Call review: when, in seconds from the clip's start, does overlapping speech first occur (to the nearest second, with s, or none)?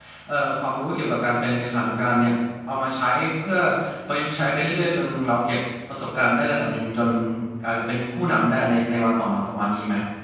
none